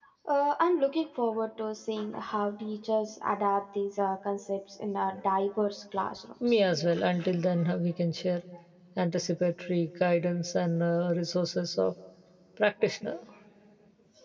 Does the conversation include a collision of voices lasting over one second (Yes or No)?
No